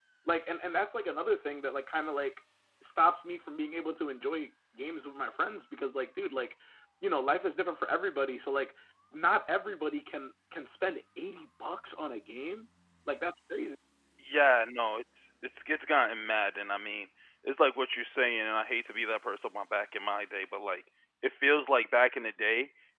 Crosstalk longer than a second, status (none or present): none